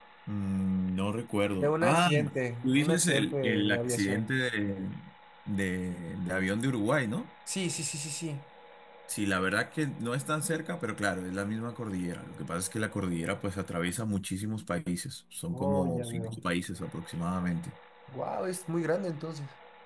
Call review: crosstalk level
present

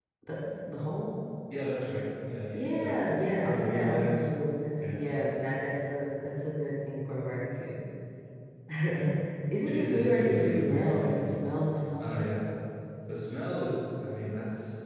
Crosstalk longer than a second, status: present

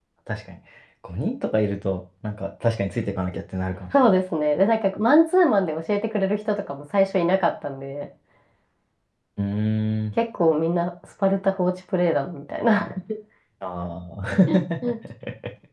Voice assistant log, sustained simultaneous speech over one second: none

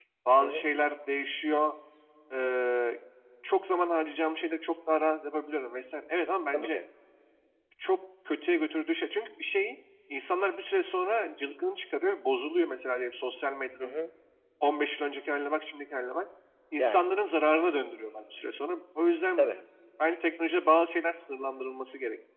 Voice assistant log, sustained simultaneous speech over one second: none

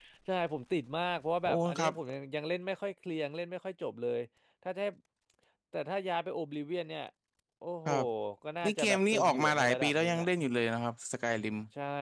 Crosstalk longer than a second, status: present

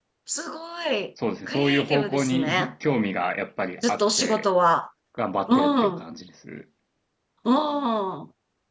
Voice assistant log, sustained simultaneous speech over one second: present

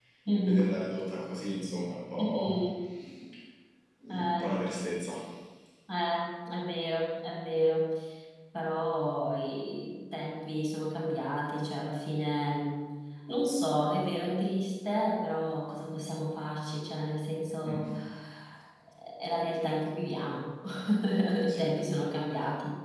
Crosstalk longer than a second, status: none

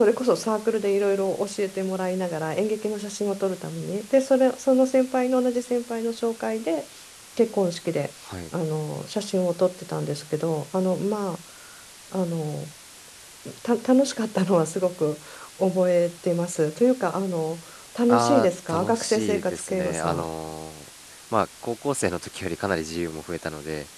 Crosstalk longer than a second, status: present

